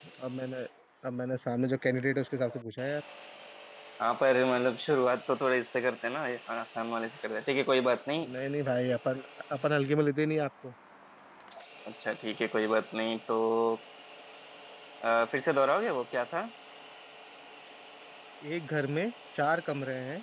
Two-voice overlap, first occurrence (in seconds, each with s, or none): none